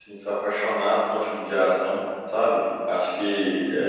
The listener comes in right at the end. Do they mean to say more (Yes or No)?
No